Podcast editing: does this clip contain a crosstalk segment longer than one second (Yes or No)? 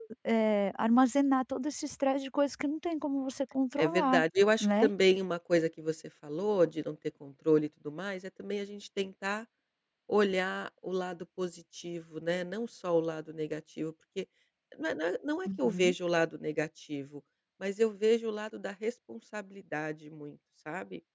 No